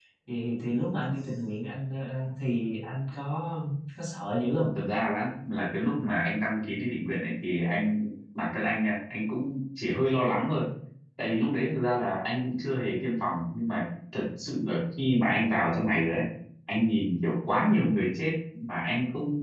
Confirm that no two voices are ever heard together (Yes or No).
Yes